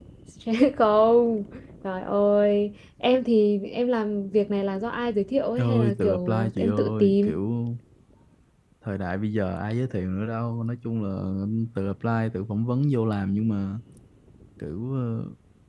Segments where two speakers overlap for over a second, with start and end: 5.6-7.4

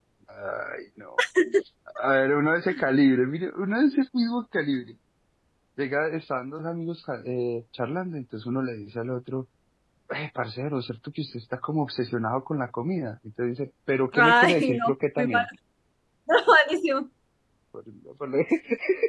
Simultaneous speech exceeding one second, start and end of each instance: 14.1-15.5

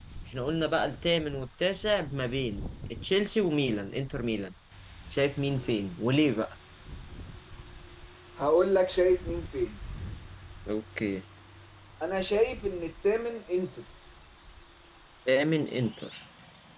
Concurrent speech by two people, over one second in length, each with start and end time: none

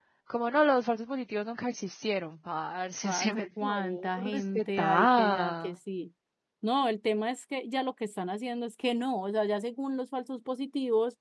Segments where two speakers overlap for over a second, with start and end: 3.0-5.8

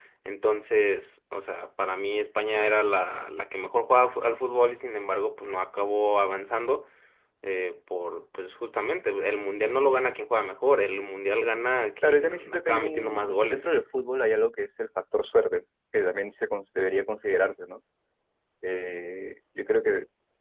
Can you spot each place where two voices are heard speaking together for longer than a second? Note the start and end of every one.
12.1-13.6

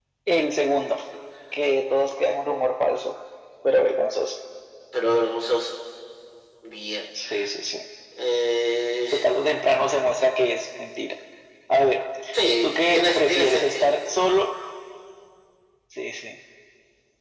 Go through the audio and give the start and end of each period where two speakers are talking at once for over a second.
12.6-13.9

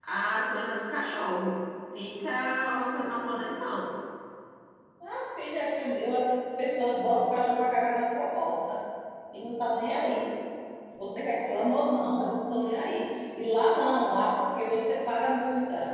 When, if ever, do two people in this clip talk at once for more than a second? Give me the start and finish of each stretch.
none

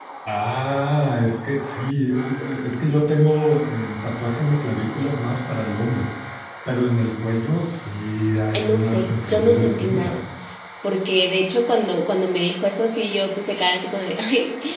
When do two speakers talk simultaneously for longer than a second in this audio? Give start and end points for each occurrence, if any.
8.5-10.2

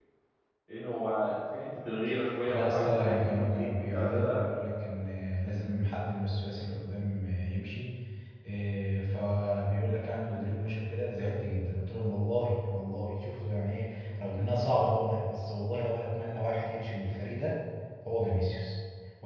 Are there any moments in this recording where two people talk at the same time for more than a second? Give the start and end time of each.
2.5-4.4

